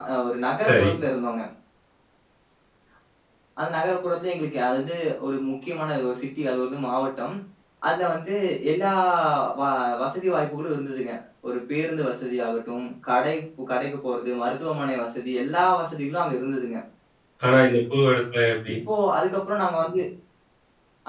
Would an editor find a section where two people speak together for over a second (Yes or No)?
No